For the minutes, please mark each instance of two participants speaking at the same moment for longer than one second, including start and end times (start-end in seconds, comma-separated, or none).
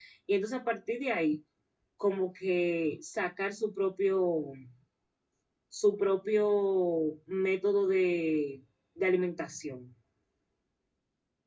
none